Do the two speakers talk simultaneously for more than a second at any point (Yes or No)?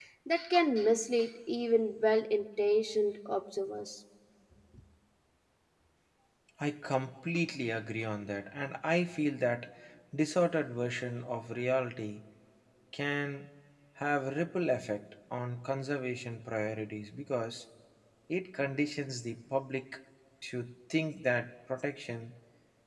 No